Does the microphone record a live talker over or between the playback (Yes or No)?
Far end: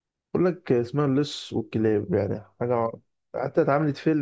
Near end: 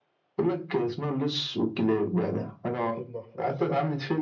Yes